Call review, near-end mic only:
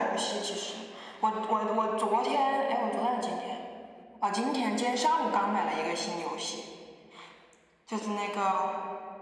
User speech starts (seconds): none

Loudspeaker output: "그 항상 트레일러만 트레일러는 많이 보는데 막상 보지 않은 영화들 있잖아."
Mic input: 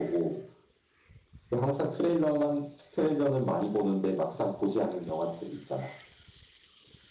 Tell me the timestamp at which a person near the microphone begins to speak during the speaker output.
none

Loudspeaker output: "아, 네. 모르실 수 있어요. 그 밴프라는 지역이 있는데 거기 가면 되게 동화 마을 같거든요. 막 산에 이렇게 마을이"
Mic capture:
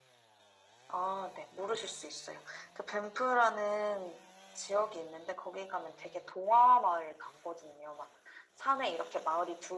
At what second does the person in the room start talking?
none

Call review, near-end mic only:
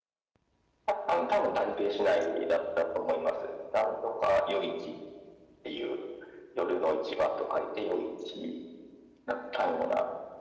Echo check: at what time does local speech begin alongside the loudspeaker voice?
none

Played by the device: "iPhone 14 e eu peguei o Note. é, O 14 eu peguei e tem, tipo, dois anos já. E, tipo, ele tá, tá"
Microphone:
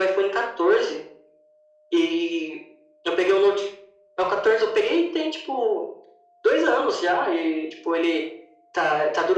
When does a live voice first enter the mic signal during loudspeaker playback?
none

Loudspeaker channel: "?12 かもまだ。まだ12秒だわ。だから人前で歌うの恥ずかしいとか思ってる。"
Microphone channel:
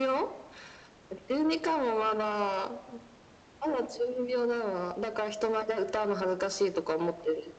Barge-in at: none

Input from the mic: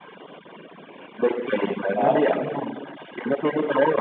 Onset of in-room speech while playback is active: 1.9 s

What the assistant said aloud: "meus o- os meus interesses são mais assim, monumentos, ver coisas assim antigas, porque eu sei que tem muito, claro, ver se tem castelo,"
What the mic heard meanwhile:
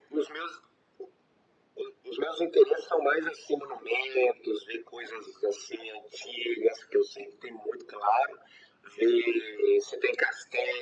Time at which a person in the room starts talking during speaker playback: none

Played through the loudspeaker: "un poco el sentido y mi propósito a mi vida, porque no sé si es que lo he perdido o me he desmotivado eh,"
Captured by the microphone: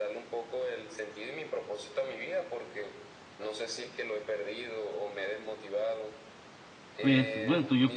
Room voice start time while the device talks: 7.0 s

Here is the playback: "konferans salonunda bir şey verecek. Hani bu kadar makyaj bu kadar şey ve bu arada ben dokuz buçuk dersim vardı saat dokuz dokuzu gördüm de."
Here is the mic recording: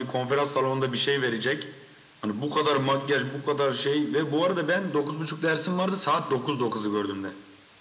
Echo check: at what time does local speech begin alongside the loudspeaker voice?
none

